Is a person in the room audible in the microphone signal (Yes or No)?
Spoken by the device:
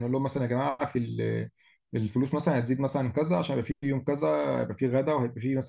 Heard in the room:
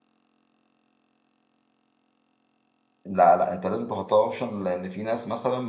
Yes